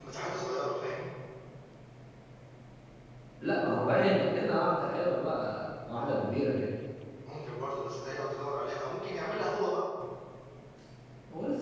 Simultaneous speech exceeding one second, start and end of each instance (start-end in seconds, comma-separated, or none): none